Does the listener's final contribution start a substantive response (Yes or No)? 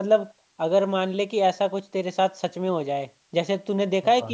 No